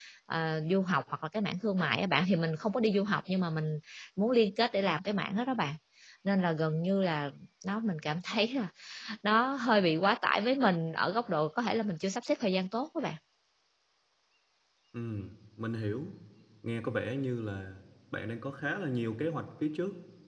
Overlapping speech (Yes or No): No